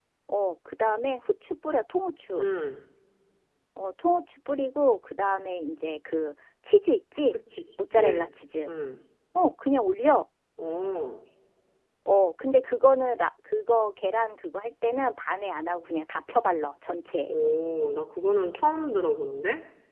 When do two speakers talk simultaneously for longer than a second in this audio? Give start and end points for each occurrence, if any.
none

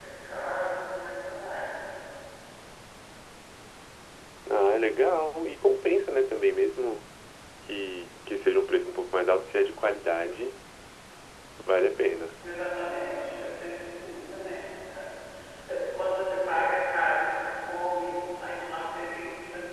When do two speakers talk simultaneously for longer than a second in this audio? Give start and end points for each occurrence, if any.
none

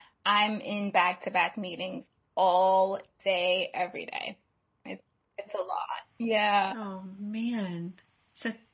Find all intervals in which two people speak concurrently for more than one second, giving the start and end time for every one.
none

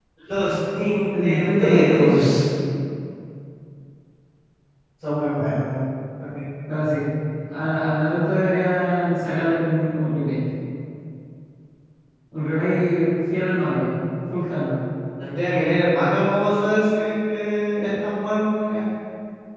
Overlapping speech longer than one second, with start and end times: 1.2-2.4

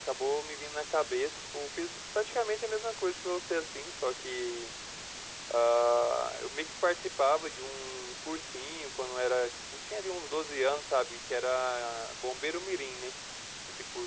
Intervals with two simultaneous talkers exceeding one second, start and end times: none

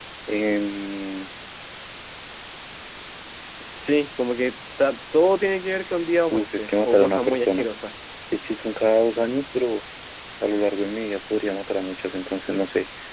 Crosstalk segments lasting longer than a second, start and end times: 6.3-7.7

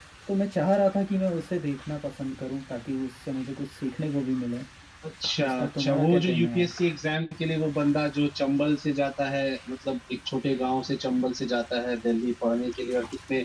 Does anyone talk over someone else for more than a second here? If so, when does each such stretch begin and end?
5.4-6.7

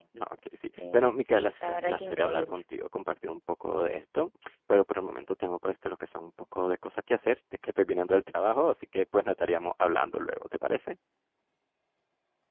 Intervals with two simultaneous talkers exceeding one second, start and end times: 0.9-2.6

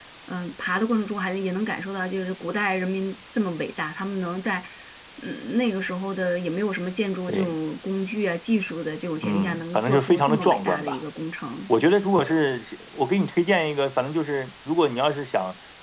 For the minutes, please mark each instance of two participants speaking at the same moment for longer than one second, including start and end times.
9.2-11.0

